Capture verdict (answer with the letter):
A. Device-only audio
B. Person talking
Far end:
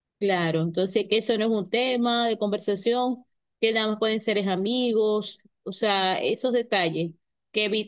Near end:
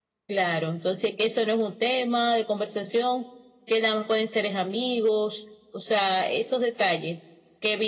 A